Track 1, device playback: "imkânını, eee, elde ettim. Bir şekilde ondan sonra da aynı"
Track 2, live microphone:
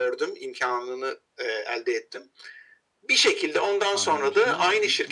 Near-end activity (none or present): present